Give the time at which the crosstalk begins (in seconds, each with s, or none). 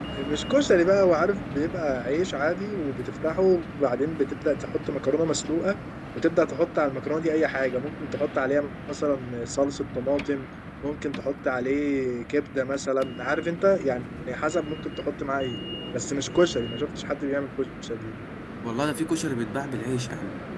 none